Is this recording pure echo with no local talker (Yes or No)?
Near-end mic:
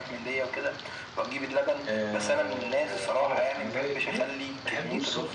No